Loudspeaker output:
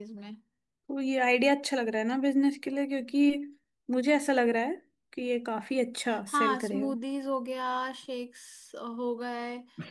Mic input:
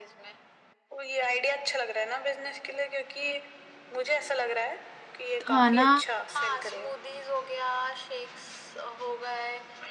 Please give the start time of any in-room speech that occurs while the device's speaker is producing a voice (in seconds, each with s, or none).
5.4 s